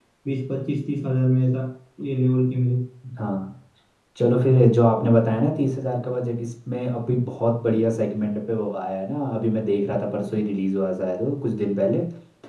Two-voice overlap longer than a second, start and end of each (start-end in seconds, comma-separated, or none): none